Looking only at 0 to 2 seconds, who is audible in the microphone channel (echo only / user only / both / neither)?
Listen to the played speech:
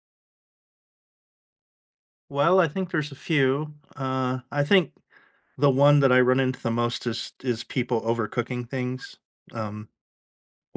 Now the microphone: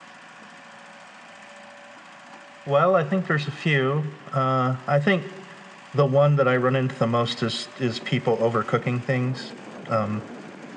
neither